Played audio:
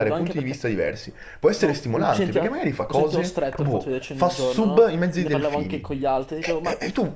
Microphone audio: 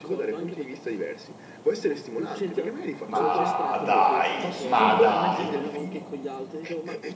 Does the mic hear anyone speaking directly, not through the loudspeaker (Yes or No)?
Yes